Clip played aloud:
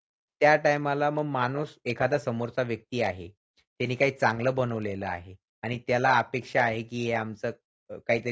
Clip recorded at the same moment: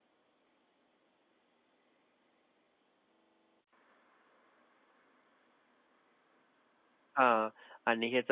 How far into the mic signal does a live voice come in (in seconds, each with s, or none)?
7.2 s